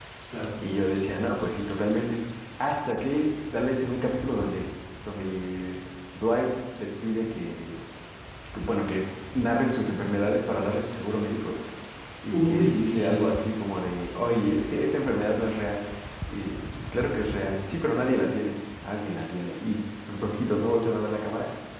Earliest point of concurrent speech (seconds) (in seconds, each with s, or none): 12.3 s